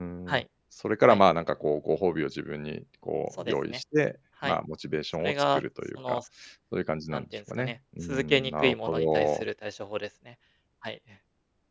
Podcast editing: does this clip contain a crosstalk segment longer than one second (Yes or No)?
Yes